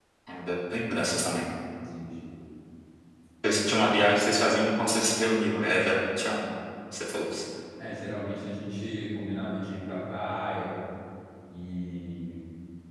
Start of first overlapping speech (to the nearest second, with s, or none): none